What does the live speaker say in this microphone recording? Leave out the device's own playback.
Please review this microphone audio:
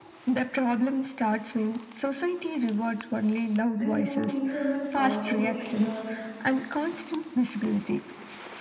and you know, introverts also enjoy

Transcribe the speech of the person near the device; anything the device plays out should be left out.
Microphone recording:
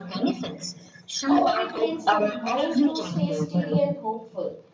a hobby trains the mind to stay steady and hopeful.

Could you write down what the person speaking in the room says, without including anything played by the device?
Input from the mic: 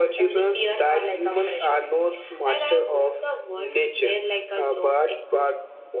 none

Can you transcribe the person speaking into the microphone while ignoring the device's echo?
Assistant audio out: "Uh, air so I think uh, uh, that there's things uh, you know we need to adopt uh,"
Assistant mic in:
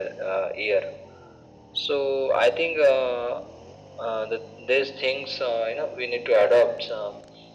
none

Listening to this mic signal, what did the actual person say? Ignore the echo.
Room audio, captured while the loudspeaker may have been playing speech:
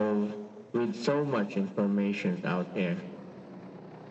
none

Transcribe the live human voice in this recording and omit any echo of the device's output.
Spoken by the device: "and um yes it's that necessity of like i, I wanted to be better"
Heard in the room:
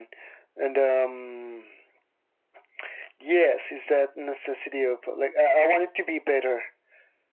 none

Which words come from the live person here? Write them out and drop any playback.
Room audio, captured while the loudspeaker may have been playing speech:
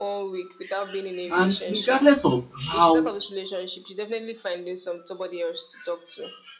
And regardless of how

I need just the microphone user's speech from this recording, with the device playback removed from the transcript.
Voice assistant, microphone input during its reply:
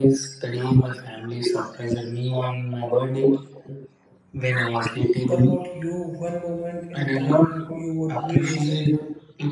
What about you? One moment in time you would revisit?

